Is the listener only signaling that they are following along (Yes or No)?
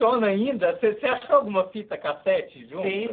No